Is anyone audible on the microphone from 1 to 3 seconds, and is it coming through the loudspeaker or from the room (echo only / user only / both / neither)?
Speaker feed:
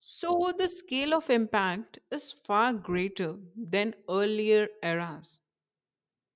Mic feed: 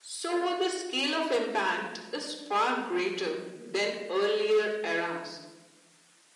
echo only